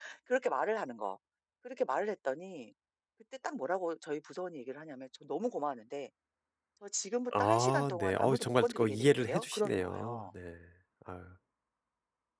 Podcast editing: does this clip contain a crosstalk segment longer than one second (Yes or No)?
Yes